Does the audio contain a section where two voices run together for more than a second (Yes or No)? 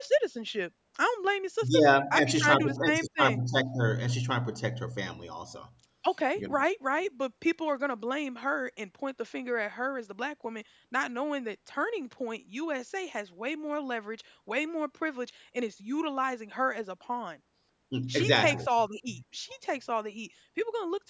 Yes